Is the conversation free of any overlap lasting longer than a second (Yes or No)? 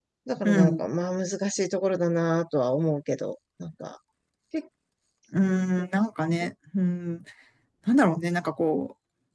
Yes